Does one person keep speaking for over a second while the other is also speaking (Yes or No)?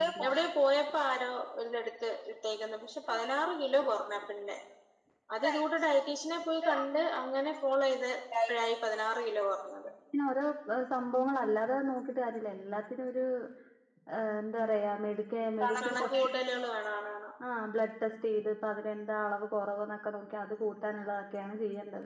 No